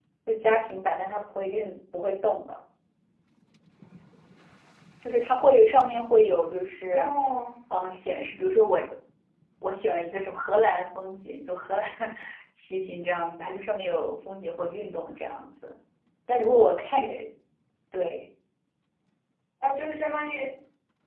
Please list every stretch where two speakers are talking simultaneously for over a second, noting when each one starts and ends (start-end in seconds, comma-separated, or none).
none